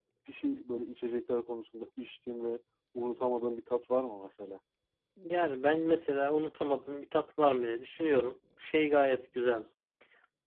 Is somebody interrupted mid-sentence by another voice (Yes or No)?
No